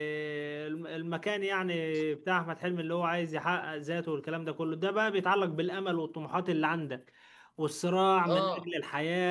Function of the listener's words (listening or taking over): listening